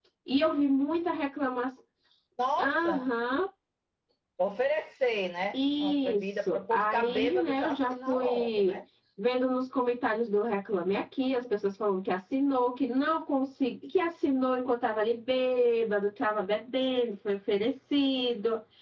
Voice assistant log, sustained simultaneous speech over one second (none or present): present